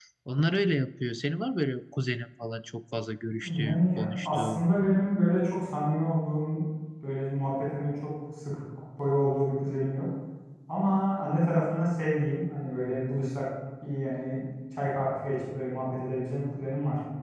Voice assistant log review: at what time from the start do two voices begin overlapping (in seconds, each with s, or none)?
3.4 s